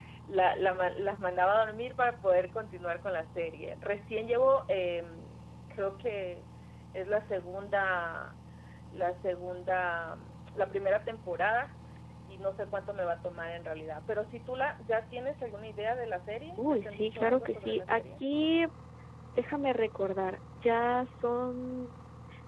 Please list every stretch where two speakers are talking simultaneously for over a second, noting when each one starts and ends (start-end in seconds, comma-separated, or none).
16.6-18.0